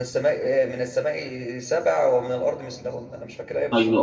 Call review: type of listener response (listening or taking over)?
taking over